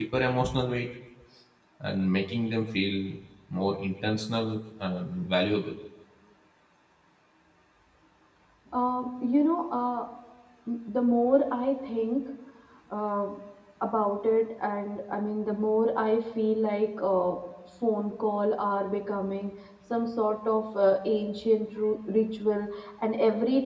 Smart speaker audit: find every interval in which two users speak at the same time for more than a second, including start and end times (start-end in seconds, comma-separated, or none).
none